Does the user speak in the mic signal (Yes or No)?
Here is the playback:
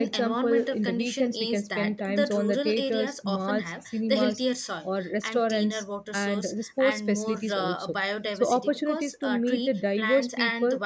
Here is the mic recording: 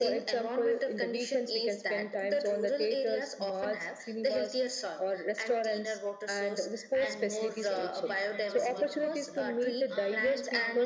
Yes